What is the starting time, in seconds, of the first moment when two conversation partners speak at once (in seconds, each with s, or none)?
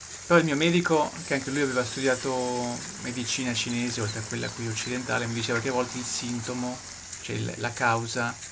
none